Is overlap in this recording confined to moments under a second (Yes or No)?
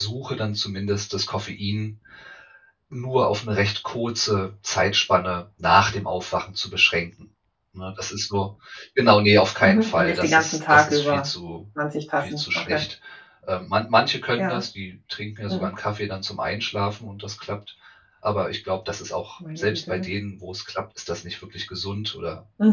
No